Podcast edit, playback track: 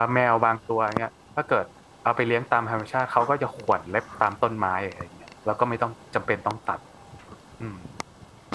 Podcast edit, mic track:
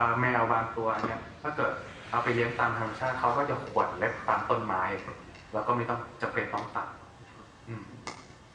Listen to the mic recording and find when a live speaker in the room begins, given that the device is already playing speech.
none

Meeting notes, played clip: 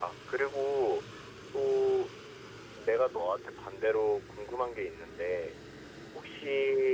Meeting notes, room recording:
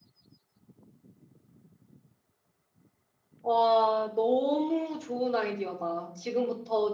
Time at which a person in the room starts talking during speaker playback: 3.4 s

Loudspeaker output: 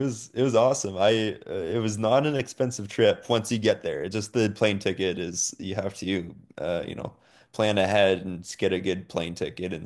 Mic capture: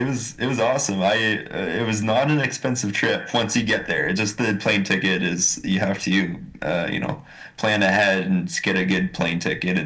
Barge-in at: none

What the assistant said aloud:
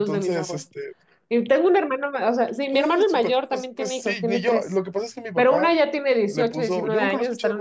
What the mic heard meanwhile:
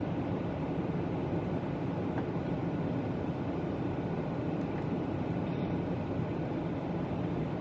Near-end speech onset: none

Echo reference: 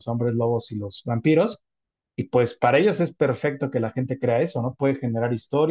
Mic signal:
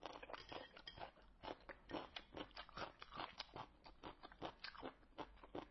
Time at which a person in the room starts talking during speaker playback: none

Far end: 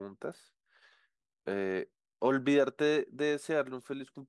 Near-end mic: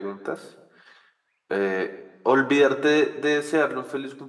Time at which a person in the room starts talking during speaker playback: none

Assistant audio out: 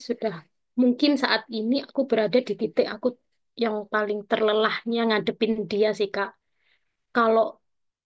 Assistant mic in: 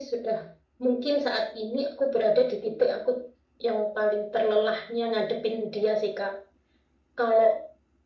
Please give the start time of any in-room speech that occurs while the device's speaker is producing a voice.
none

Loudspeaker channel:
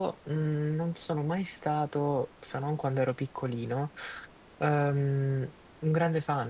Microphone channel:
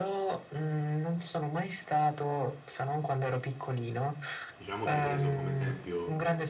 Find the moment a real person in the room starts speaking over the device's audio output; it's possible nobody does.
4.6 s

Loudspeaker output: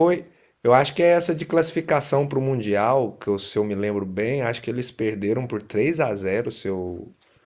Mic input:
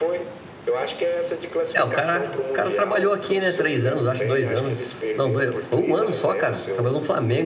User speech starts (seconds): 1.7 s

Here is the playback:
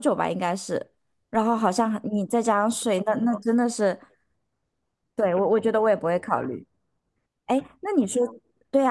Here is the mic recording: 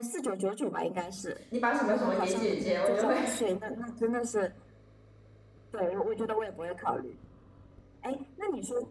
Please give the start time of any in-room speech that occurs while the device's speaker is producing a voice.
1.5 s

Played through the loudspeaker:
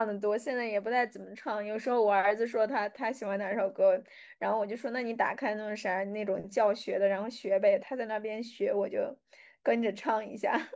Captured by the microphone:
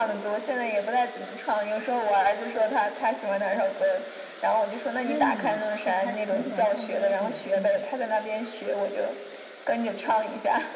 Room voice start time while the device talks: 5.0 s

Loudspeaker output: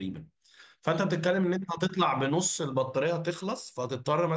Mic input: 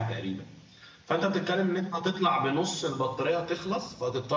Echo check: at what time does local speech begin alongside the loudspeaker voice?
none

